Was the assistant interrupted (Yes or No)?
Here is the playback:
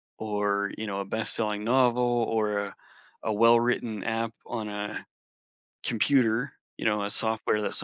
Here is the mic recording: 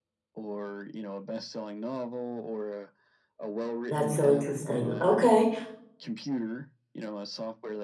Yes